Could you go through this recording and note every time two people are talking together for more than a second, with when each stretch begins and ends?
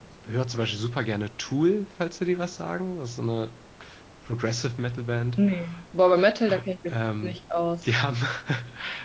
none

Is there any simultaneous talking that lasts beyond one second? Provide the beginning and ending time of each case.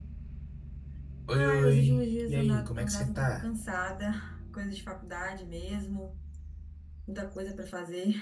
1.3-3.5

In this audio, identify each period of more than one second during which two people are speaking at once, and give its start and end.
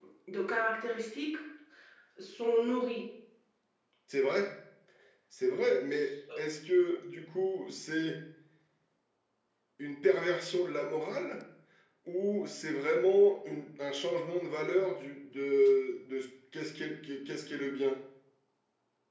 none

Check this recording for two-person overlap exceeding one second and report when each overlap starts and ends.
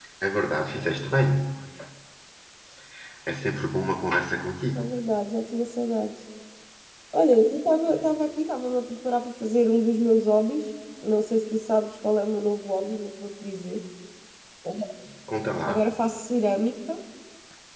none

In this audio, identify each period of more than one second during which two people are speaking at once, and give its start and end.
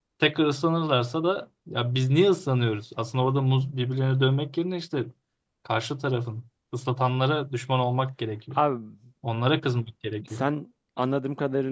none

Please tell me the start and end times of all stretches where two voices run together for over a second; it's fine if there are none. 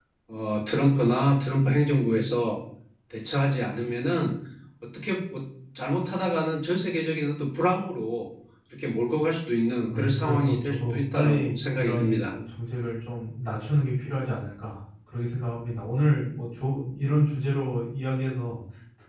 9.9-12.3

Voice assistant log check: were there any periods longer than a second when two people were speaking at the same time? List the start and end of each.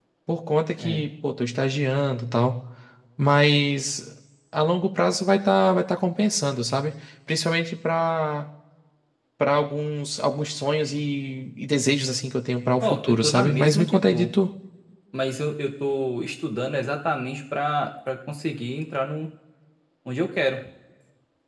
12.8-14.3

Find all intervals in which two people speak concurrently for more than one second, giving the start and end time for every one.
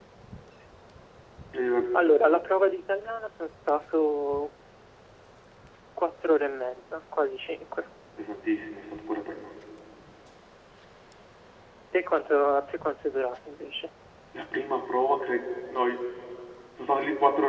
none

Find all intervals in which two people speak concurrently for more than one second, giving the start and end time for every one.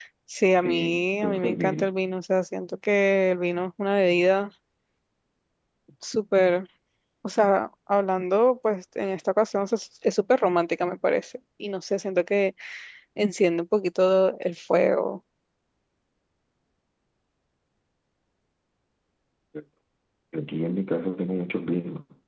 0.6-1.9

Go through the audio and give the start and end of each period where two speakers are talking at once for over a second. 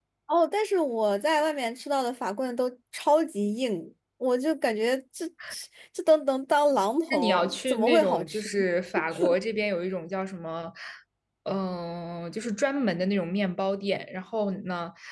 7.1-8.5

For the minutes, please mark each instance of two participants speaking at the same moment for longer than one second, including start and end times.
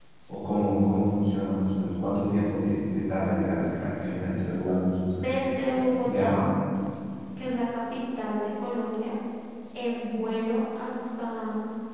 none

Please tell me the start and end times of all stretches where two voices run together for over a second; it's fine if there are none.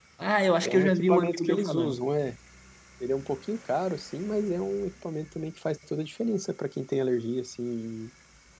0.6-2.0

